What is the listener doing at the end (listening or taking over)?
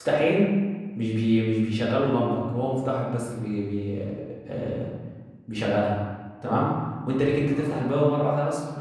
listening